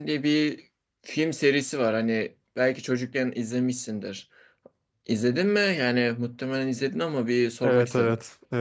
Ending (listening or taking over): taking over